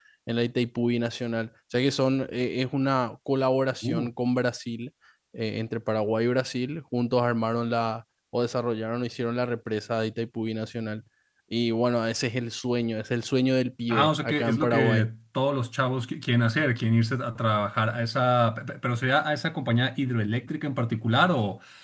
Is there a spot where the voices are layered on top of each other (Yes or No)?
Yes